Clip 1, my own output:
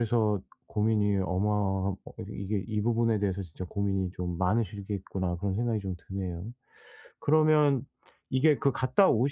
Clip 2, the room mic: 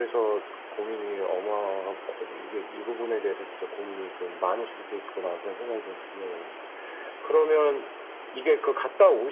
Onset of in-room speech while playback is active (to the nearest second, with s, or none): none